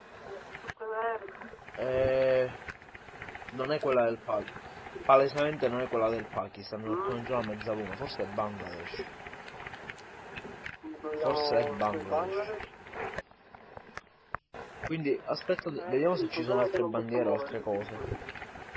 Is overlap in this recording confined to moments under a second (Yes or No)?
No